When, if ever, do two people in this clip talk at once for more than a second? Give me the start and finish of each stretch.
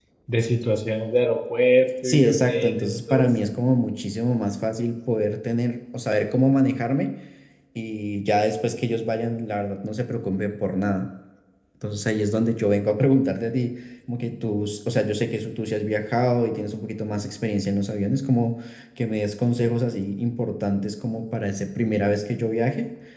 2.0-3.5

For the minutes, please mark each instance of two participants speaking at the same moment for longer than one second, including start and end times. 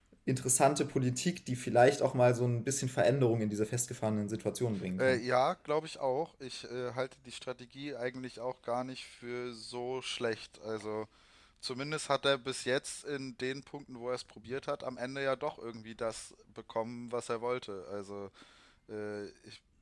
none

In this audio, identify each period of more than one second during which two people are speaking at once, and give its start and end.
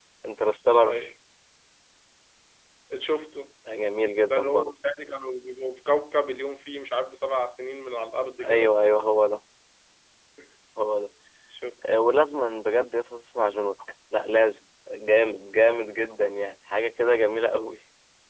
none

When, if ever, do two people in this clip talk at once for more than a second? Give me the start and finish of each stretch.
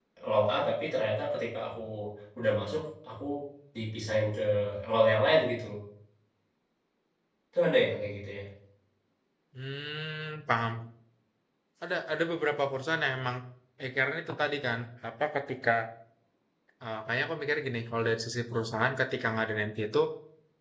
none

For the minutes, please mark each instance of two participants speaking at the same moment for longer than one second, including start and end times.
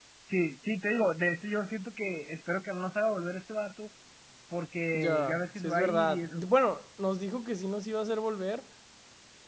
4.9-6.4

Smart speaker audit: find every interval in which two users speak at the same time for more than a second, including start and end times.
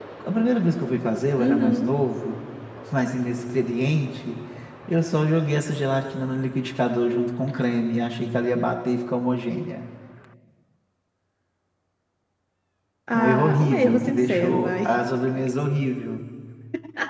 13.1-14.8

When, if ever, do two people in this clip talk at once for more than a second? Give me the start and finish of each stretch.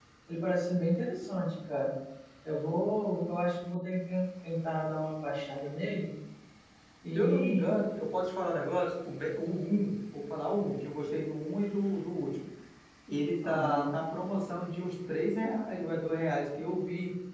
none

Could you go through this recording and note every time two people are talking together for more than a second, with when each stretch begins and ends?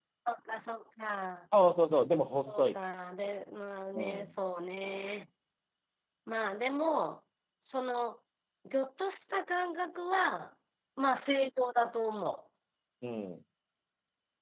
none

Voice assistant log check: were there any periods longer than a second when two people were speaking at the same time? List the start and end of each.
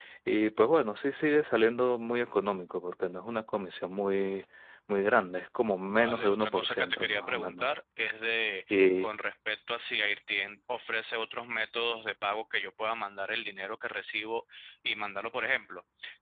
6.0-7.7

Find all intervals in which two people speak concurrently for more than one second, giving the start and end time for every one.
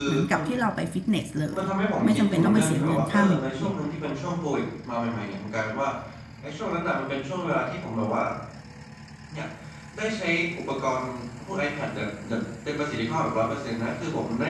2.0-3.7

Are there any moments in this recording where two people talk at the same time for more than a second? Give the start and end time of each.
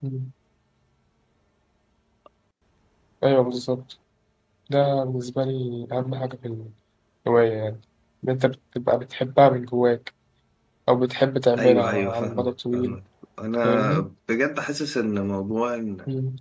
11.6-13.0

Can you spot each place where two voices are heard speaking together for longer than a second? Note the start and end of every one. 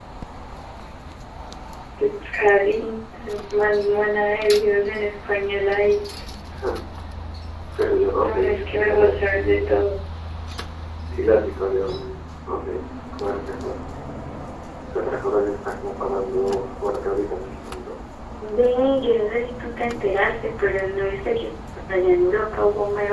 8.2-9.7

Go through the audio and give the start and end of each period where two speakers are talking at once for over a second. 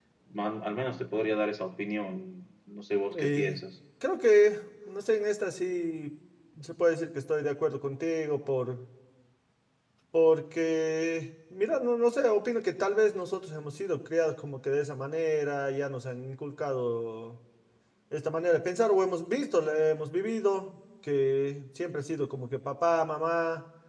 none

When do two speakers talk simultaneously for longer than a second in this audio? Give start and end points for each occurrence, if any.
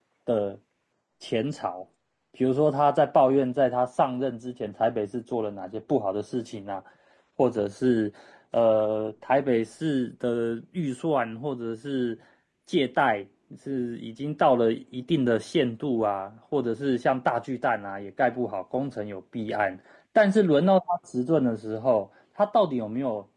none

